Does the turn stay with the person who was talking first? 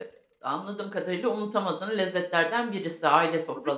No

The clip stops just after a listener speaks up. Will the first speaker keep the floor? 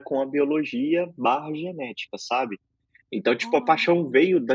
Yes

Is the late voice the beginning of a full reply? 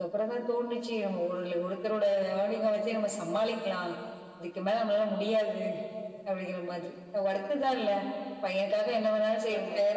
No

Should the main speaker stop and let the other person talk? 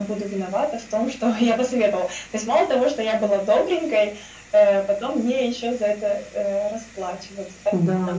Yes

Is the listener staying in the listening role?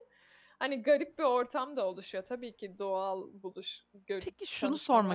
No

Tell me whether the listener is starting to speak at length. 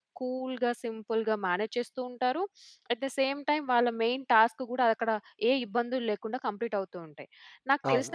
No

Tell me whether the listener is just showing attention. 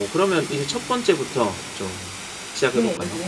No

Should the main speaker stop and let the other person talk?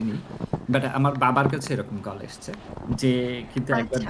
No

